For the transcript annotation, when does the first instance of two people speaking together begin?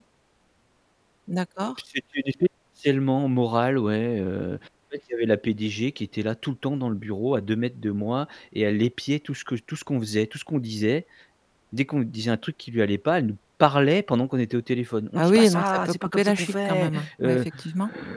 15.2 s

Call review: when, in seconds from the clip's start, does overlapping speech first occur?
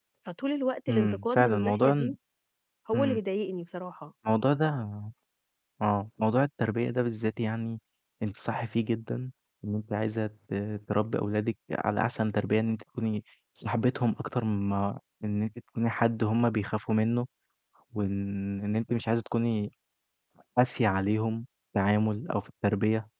0.9 s

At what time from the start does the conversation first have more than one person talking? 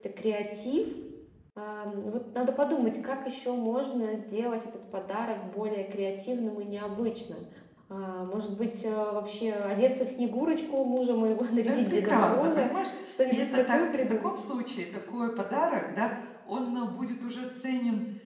11.6 s

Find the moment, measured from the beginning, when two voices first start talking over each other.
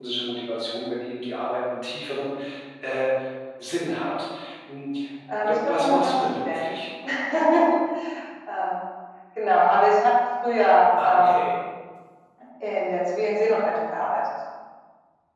5.4 s

